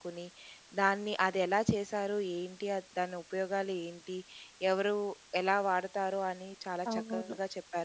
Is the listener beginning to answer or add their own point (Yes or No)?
No